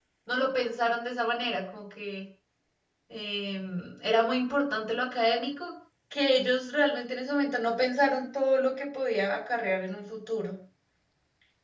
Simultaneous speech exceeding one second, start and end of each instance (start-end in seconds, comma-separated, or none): none